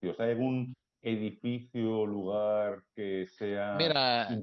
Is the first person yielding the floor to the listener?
Yes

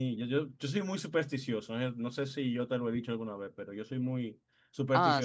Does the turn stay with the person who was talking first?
Yes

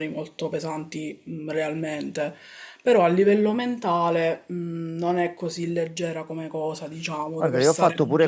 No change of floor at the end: No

